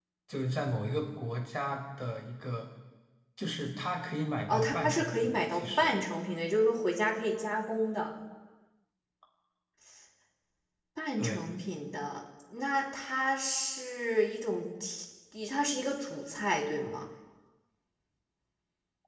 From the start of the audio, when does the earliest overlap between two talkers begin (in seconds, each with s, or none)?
4.5 s